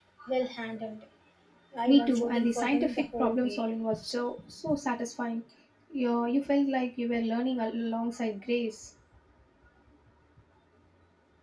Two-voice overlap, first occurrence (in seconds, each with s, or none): 1.9 s